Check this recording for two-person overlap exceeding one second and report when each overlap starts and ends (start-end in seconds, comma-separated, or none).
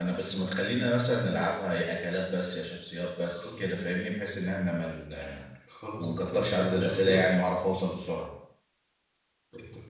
6.0-7.2